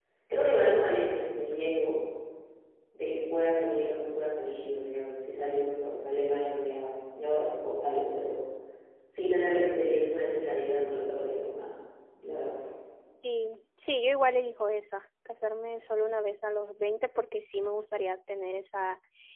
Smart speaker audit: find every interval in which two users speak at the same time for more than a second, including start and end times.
none

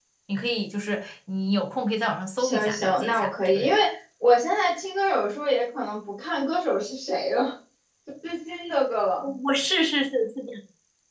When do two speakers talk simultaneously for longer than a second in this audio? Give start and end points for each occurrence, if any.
2.4-3.8

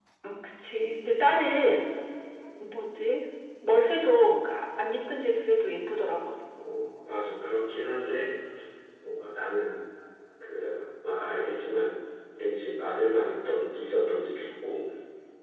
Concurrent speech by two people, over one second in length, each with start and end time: none

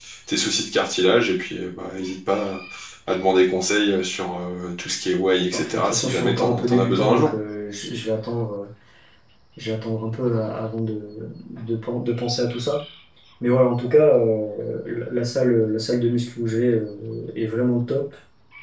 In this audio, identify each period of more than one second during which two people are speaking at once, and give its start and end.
5.5-7.3

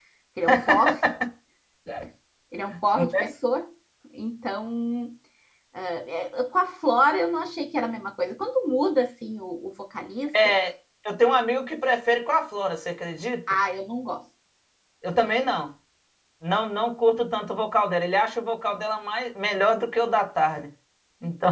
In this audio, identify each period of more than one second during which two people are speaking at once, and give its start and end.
none

